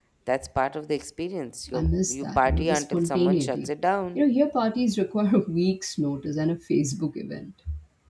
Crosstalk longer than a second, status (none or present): present